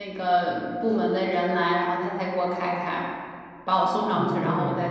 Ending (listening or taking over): listening